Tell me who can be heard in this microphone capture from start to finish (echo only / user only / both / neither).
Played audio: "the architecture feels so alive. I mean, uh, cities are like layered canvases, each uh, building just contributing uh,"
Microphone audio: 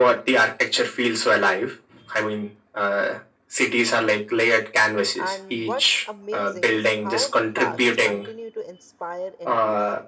both